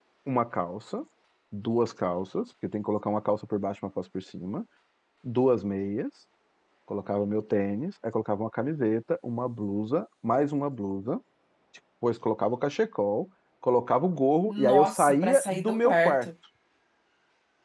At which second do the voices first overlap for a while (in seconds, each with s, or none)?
14.4 s